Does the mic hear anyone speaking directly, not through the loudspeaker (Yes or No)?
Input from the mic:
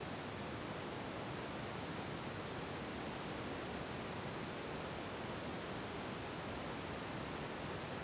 No